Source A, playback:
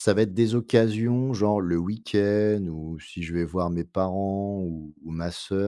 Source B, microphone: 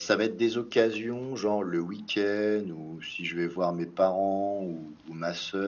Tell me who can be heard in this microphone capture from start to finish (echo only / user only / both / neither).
echo only